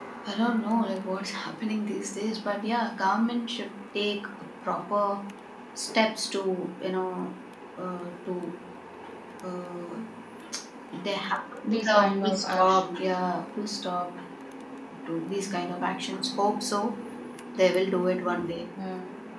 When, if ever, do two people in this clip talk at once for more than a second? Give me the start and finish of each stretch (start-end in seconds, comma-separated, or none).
11.7-13.2